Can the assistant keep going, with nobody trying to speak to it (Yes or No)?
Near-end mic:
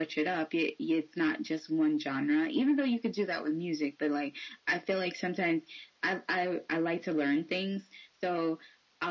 Yes